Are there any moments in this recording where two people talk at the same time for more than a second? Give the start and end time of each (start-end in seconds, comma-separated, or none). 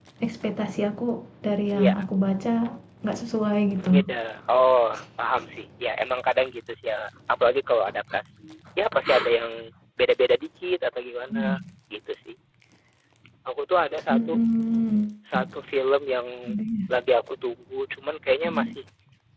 none